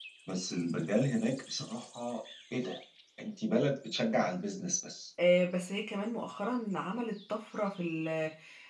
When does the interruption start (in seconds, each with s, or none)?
none